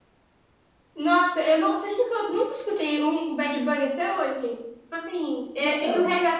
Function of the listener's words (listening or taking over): listening